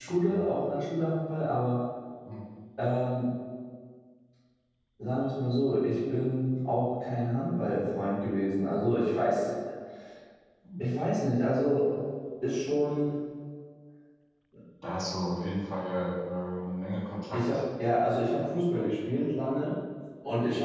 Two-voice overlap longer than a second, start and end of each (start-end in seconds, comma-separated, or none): none